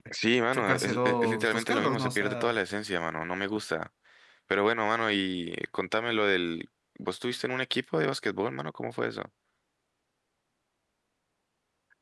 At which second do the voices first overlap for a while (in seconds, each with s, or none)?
0.5 s